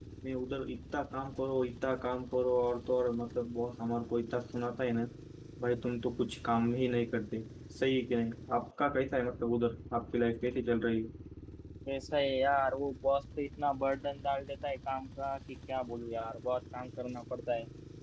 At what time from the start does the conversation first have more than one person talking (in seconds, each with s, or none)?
none